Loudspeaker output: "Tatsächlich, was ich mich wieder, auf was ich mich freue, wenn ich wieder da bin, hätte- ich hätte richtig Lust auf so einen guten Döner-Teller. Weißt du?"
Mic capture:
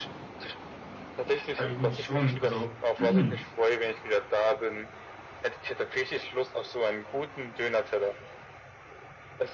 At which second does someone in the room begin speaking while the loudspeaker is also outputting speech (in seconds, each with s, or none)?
1.5 s